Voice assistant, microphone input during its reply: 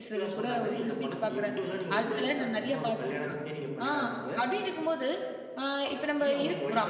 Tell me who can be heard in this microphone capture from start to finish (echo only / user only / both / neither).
both